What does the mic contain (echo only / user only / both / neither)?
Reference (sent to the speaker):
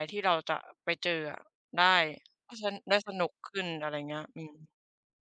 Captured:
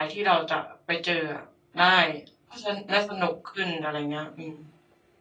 echo only